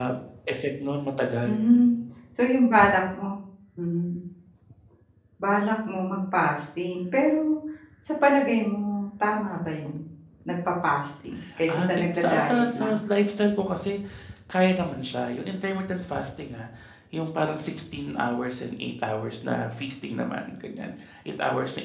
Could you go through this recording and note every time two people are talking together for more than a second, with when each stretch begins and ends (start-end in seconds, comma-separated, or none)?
11.7-12.9